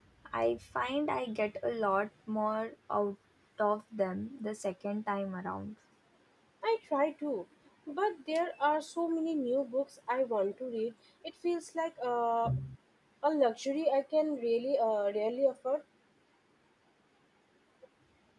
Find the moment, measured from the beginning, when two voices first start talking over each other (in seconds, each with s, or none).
none